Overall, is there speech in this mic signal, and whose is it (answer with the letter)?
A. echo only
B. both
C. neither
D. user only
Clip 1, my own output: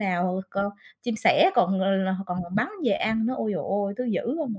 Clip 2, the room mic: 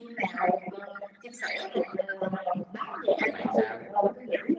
B